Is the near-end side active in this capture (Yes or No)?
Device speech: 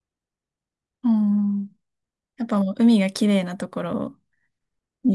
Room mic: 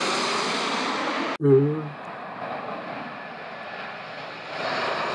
Yes